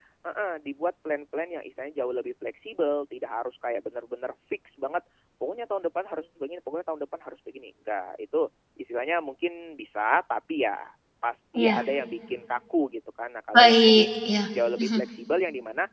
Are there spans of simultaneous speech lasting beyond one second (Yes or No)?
No